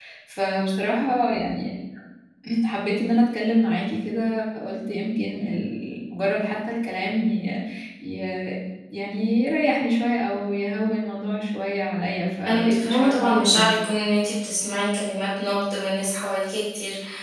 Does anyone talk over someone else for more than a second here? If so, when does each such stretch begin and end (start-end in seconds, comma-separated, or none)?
12.4-13.7